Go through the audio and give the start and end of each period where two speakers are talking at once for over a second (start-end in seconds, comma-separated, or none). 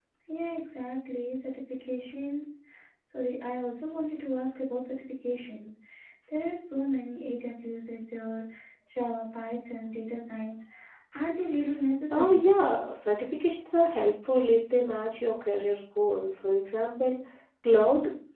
none